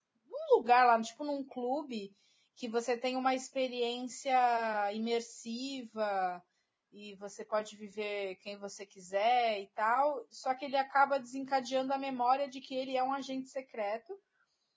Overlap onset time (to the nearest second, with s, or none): none